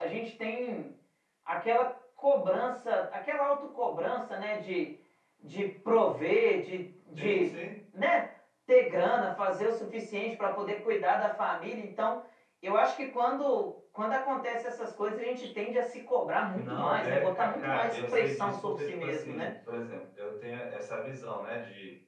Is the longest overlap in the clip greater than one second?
Yes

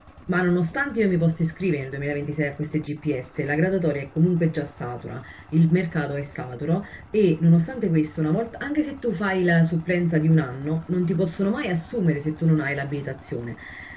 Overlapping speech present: No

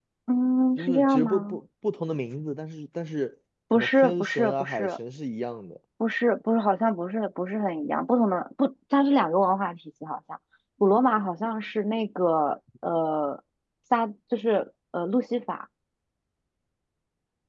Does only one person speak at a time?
No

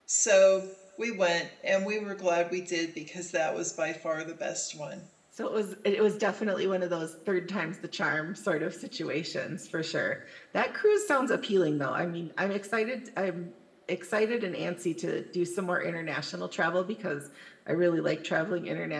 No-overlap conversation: Yes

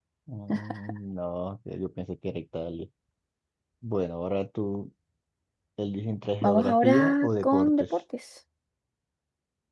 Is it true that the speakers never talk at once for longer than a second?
No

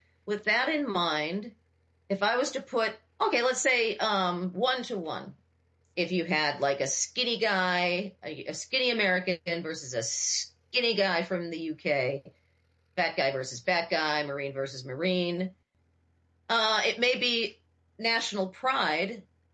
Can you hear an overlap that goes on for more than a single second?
No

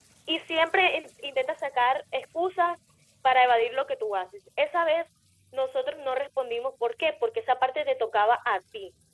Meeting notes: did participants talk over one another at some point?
No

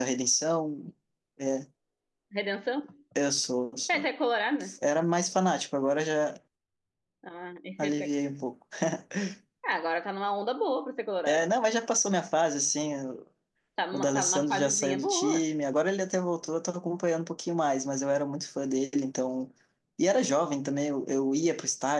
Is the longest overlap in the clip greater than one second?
Yes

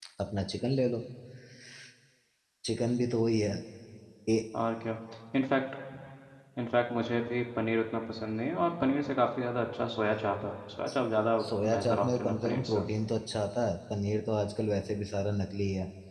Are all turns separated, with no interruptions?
No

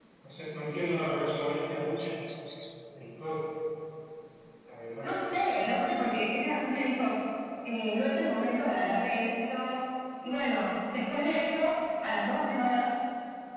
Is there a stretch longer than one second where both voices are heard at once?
No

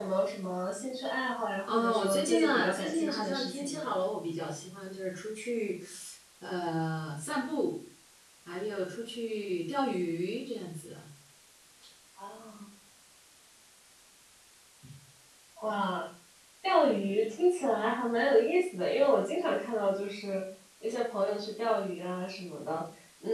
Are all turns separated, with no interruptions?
No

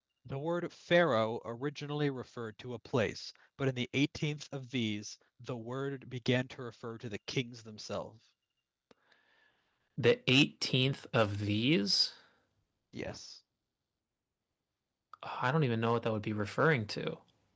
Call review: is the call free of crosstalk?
Yes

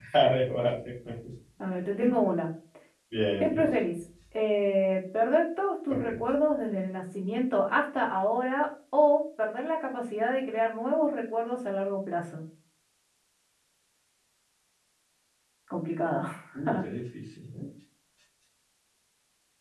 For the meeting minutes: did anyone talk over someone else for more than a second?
No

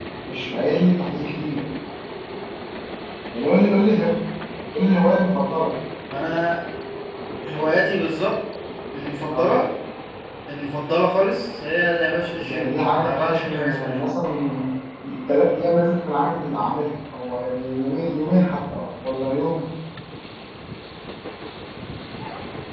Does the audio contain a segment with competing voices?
Yes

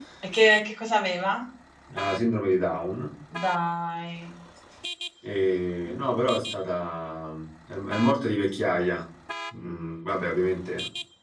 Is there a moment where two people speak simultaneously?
No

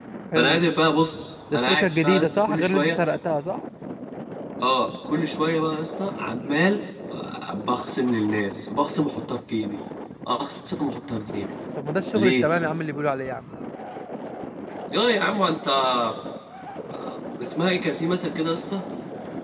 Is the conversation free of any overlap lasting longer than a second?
No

